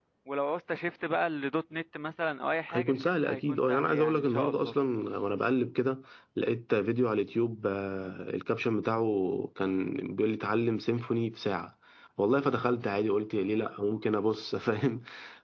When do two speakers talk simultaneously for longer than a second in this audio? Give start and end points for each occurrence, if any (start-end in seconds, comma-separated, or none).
2.7-4.8